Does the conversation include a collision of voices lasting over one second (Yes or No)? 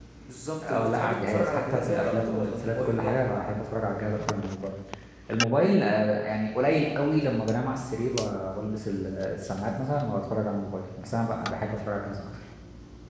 Yes